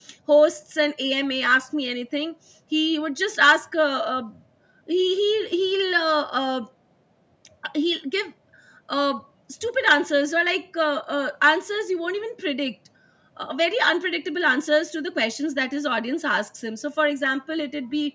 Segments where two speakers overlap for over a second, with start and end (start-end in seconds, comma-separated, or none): none